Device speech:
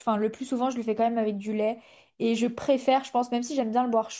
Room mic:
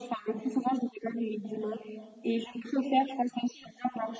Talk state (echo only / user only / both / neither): echo only